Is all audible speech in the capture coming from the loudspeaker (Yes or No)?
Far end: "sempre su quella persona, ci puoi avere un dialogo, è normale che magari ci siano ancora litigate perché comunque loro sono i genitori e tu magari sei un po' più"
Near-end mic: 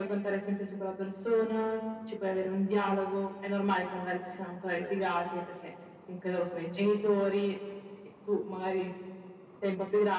No